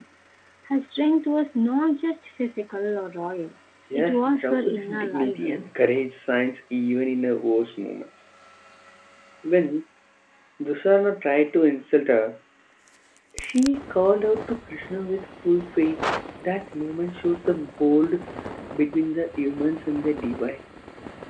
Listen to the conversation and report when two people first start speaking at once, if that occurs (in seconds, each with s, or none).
3.9 s